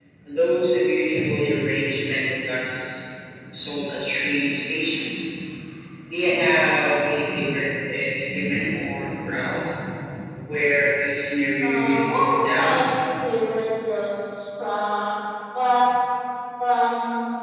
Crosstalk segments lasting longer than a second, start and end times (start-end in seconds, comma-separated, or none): 11.6-12.8